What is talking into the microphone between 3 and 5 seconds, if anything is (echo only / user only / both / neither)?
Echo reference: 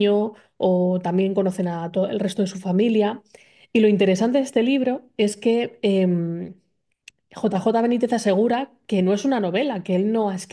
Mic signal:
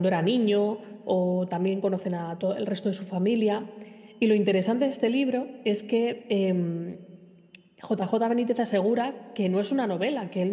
echo only